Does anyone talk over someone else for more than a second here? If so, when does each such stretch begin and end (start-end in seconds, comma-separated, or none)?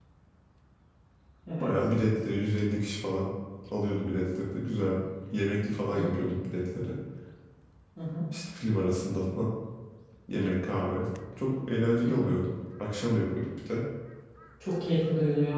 none